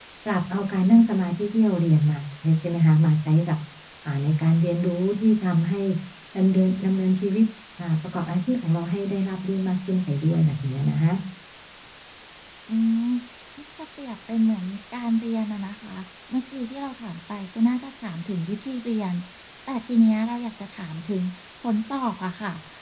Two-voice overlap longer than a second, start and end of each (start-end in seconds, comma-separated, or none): none